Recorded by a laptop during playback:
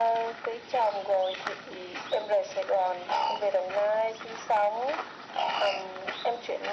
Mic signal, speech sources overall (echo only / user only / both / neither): echo only